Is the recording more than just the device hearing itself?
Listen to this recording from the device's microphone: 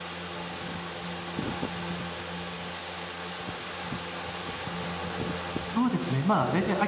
Yes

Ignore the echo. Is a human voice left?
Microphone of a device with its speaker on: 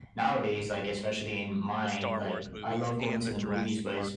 Yes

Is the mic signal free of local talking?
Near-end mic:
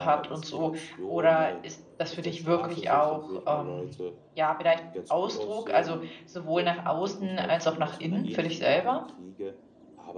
No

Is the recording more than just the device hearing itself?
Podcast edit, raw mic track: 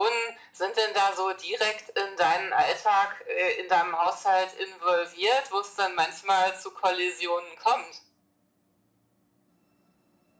No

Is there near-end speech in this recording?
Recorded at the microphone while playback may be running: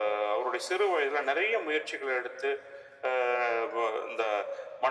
No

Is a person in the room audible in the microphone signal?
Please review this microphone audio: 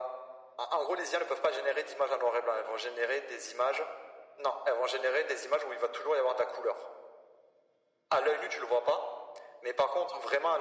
No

